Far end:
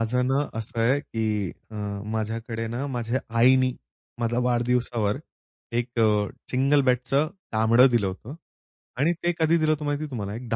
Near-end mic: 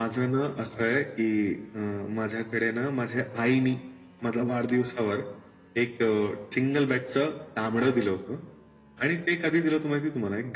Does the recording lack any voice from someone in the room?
Yes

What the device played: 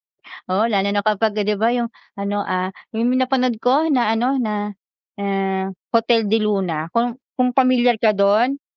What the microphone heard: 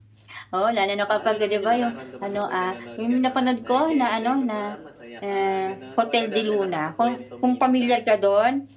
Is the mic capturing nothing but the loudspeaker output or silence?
No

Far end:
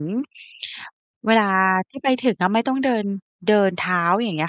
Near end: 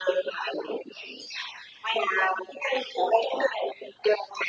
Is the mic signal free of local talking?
Yes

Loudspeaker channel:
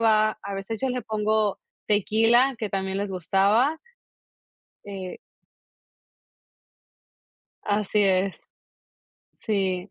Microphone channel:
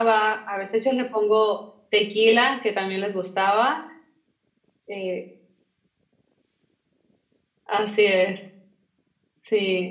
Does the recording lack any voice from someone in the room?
Yes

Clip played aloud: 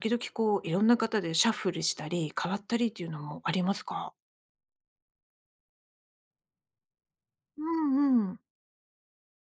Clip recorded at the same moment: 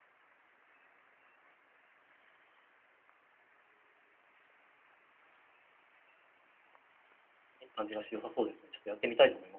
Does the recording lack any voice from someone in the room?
No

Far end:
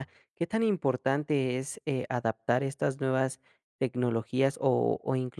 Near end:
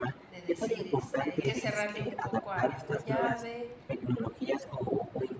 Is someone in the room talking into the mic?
Yes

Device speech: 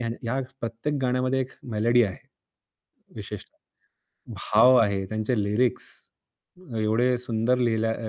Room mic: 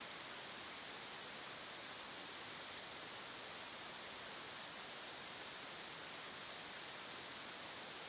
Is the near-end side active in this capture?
No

